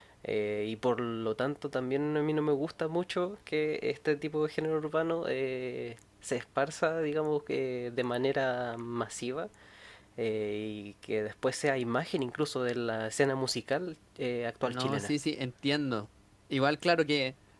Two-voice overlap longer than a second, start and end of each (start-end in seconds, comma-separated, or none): none